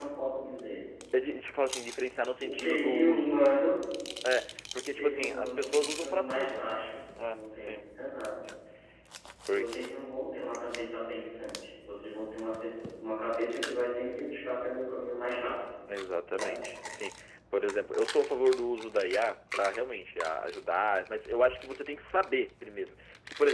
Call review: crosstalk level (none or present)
present